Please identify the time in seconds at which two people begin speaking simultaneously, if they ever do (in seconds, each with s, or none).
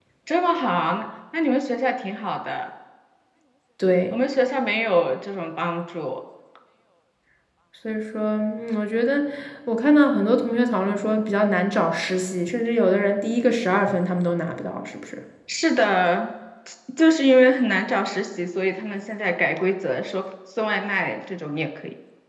none